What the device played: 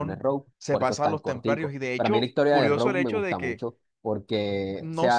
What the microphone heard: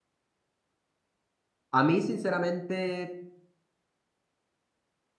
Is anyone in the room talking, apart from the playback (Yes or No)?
Yes